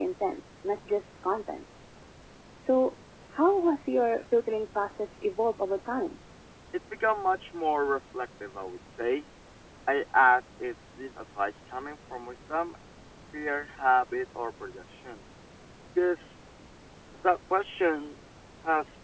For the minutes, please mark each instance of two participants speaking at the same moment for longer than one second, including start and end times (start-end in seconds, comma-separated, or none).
none